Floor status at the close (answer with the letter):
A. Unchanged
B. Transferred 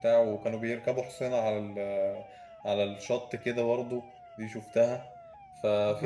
A